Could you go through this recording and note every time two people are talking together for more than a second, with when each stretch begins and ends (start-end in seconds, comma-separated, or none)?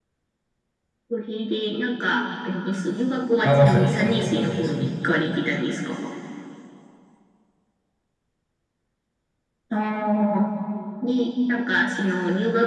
3.4-4.9